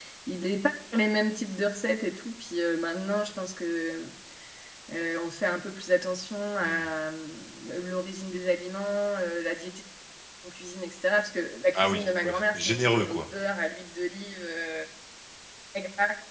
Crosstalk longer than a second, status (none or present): present